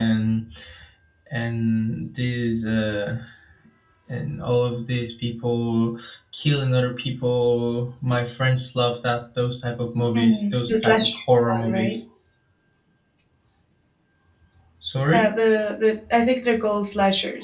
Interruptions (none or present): present